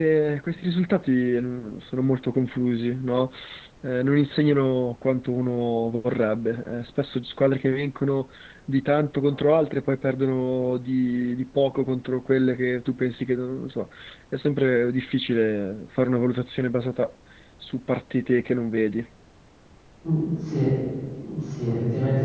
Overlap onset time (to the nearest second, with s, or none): none